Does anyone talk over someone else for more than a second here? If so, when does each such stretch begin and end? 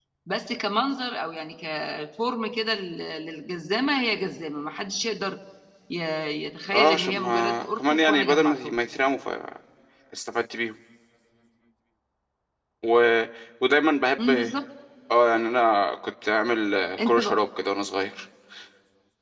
6.7-8.8

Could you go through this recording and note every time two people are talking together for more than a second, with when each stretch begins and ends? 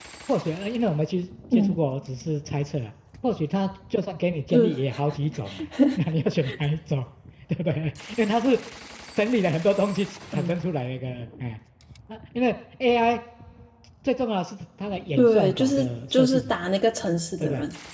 15.2-16.6

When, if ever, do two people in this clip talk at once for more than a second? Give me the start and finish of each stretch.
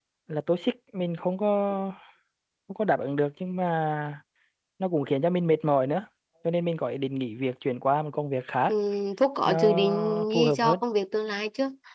9.5-10.8

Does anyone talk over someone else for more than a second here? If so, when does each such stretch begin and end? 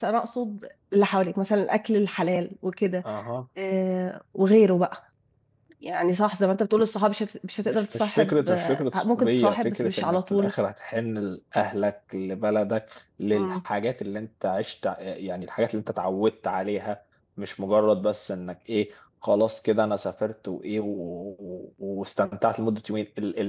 7.7-10.5

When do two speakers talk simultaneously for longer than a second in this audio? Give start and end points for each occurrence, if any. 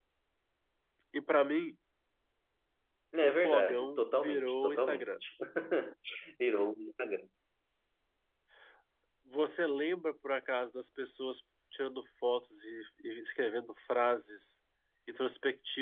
3.2-5.1

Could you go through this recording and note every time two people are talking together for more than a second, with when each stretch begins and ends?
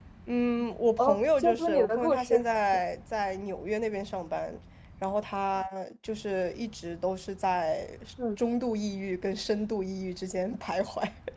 1.0-2.4

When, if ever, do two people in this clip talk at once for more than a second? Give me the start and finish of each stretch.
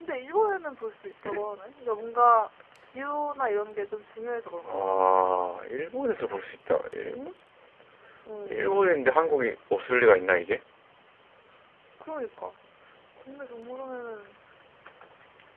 none

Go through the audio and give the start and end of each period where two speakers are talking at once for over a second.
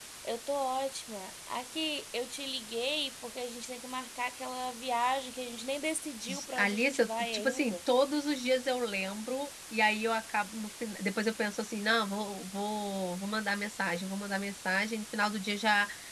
6.6-7.8

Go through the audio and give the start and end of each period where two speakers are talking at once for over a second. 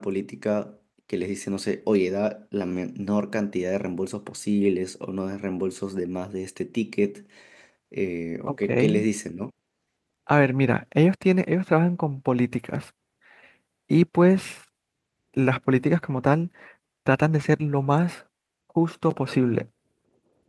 none

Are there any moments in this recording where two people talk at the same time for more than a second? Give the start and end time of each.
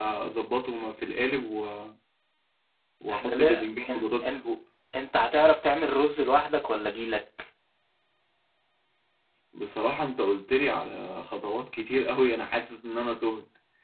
3.1-4.4

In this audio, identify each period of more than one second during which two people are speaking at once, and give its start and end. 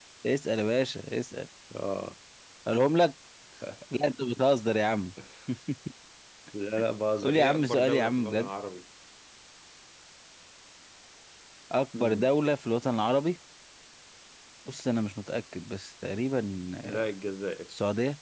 7.2-8.5

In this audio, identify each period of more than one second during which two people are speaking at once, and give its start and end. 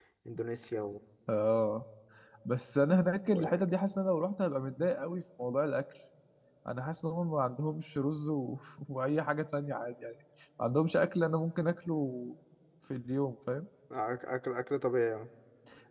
none

